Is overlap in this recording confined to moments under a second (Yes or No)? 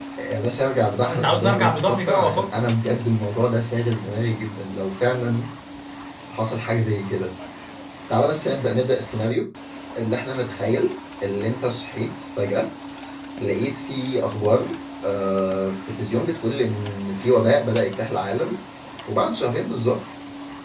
No